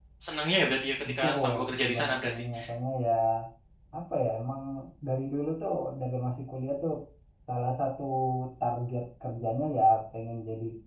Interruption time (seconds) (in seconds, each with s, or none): 1.1 s